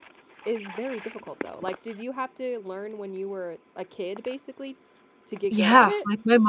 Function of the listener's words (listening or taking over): taking over